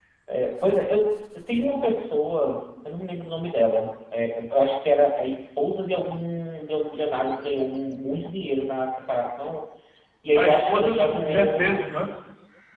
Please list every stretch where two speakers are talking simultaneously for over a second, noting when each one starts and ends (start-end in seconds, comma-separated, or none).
10.3-11.8